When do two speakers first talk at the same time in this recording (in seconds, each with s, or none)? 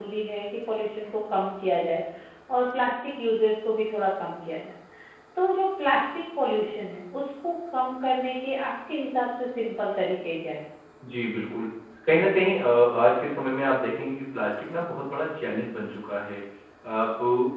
none